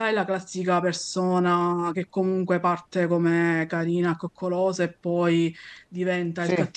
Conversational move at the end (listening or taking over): listening